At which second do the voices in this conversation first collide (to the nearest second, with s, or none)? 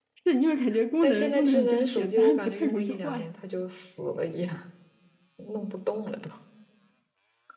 1 s